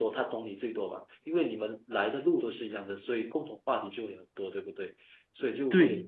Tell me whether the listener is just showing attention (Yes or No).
Yes